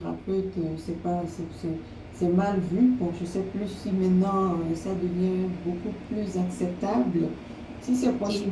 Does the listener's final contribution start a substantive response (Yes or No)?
No